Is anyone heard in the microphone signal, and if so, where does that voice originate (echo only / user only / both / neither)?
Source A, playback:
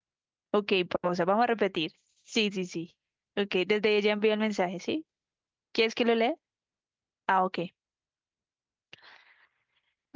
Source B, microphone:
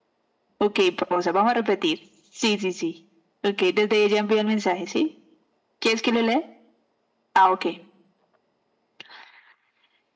echo only